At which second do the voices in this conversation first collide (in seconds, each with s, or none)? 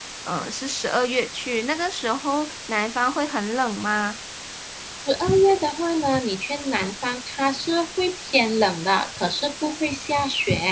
none